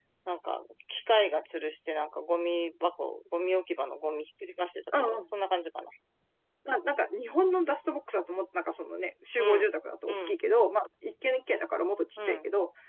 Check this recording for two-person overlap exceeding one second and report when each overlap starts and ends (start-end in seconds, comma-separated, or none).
none